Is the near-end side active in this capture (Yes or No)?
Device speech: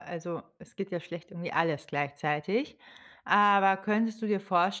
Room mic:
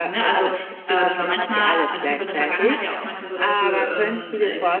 Yes